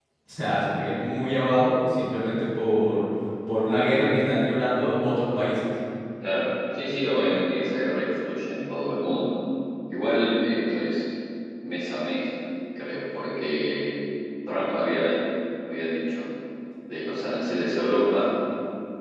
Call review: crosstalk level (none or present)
none